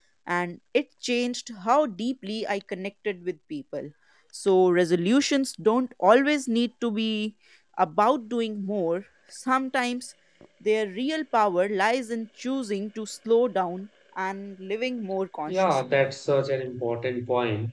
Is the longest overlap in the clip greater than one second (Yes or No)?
No